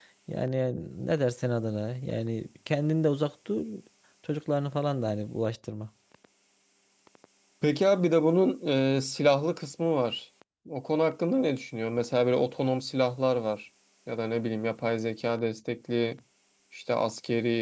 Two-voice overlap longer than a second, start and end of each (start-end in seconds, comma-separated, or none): none